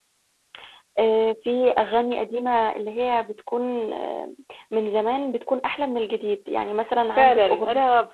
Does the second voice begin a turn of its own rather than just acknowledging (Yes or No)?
Yes